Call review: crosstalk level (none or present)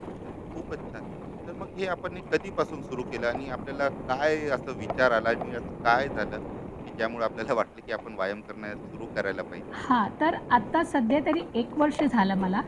none